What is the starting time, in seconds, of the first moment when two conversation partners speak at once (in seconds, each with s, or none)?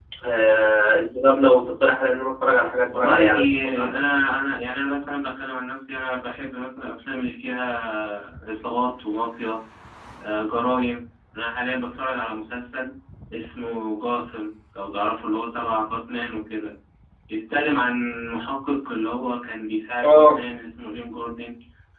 2.9 s